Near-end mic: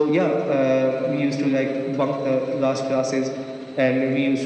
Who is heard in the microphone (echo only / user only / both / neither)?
echo only